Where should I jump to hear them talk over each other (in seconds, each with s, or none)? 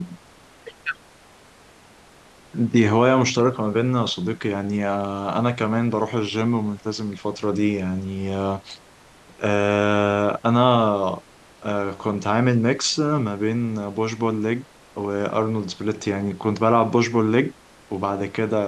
none